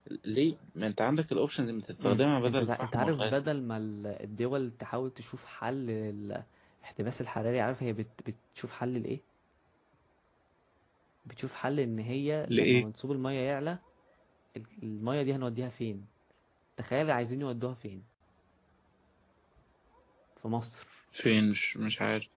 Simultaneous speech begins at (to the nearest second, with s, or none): 2 s